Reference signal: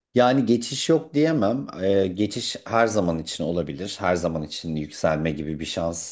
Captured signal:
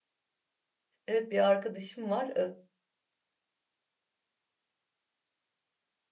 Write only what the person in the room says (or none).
Evet bir arkadaşım var.